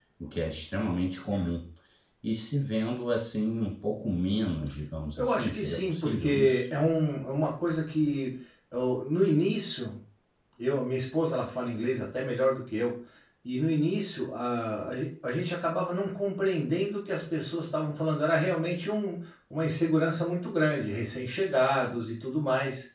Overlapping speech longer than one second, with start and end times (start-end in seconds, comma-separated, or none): 5.2-6.6